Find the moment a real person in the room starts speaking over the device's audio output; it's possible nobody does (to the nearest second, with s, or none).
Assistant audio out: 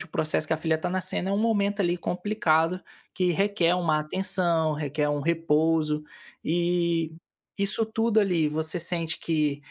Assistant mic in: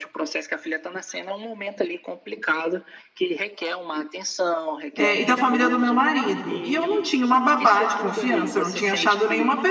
5 s